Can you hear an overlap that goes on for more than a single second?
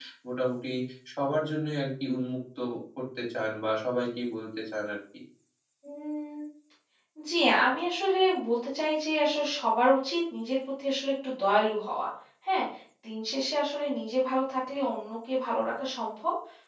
No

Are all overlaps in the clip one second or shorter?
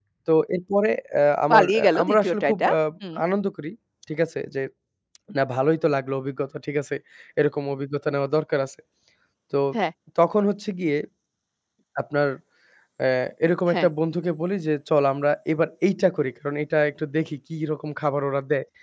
No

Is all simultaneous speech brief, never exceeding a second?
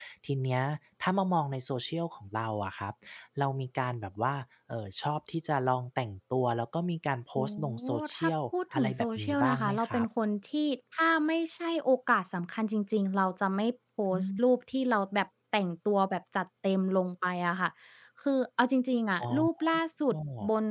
No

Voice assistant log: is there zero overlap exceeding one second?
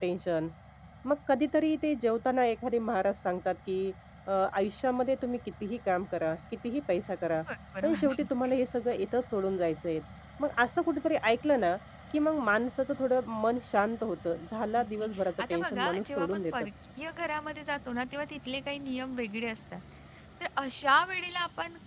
No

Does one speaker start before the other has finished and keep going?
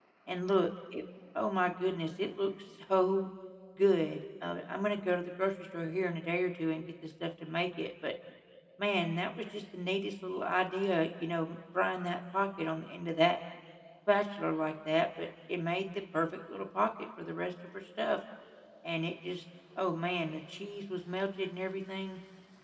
No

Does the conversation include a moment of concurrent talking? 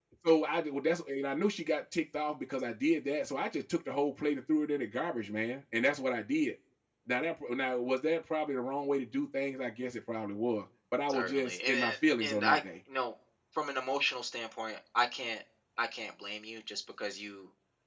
Yes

